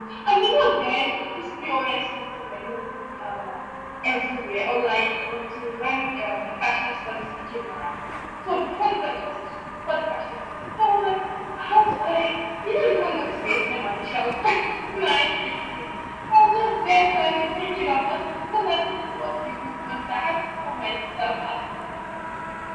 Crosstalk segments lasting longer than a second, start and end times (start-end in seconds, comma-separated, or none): none